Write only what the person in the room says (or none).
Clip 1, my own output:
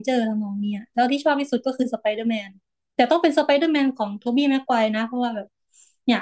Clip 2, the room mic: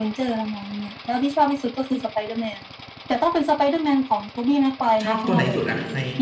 ชอบตัวไหนสุดอะใน